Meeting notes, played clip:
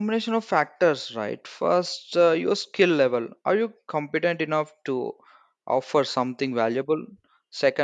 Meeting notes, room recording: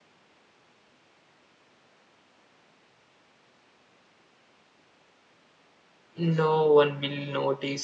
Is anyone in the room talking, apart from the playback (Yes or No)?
Yes